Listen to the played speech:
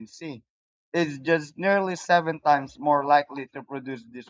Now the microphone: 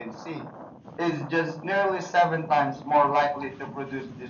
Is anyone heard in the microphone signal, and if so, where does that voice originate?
echo only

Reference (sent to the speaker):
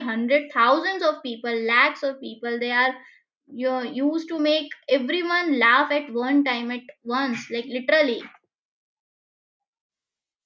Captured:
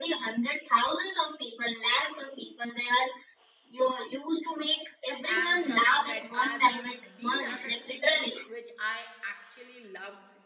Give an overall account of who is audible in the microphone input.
both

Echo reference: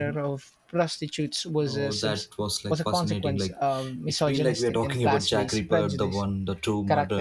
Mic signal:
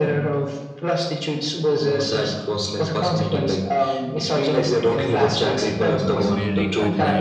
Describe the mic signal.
both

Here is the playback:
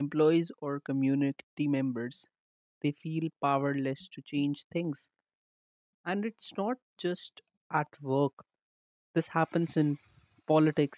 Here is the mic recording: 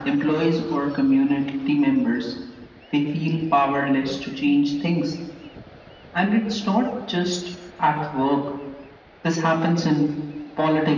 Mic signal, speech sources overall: echo only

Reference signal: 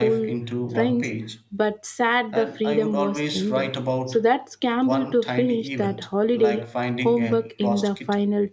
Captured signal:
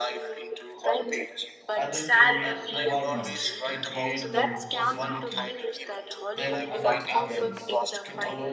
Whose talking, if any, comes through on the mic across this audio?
both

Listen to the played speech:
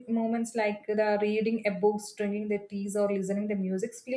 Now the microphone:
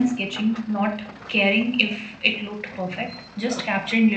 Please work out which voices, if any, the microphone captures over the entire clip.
user only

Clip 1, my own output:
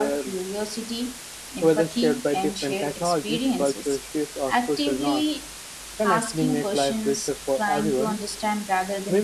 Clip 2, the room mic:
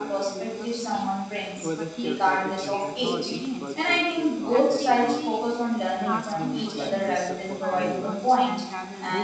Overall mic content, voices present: both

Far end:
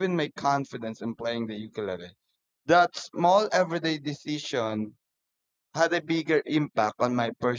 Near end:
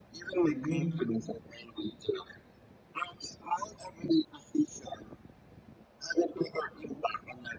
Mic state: both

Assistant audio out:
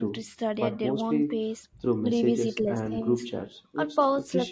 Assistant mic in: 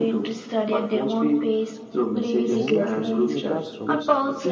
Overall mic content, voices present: both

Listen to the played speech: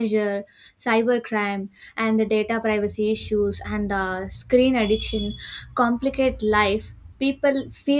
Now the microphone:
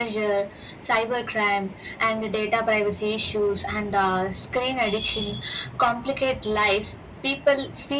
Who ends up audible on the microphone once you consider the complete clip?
echo only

